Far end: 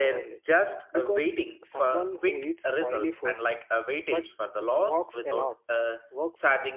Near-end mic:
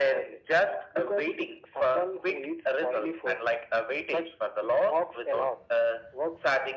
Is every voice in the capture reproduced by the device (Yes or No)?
Yes